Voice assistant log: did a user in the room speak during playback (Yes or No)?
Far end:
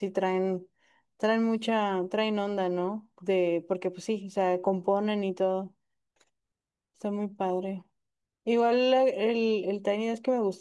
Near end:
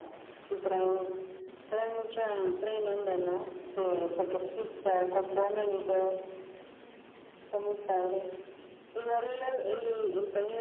No